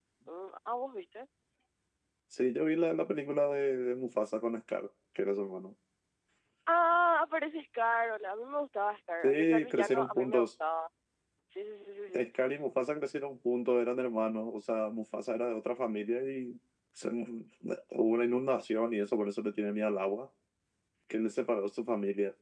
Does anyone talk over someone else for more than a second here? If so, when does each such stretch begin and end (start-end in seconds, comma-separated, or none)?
9.2-10.5